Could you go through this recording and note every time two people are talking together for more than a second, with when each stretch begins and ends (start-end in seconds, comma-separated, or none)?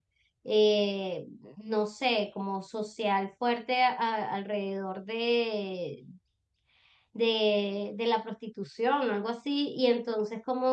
none